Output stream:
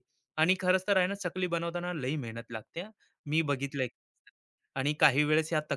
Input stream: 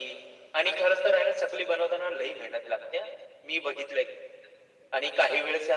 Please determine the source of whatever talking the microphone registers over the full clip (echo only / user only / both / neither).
echo only